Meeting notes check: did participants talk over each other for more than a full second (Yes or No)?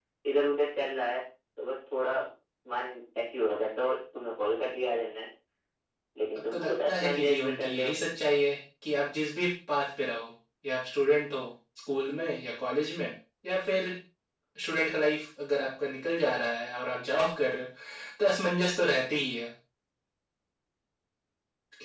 Yes